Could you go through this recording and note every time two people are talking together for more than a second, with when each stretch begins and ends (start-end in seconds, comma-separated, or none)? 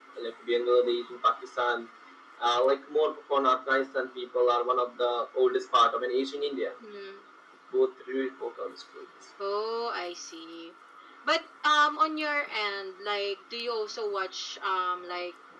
none